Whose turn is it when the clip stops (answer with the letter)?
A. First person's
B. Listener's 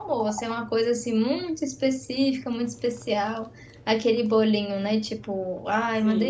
A